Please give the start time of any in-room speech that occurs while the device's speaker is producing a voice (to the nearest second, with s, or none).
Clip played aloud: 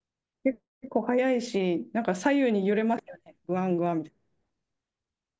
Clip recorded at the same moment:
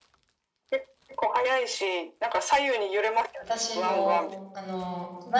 3 s